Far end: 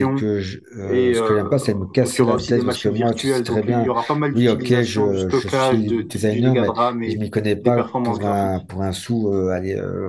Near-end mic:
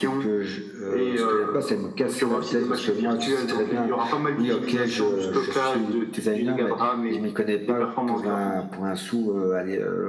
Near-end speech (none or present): none